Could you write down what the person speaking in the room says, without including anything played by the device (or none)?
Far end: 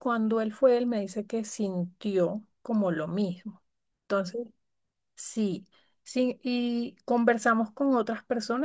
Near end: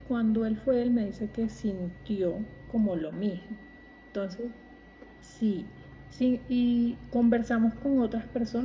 none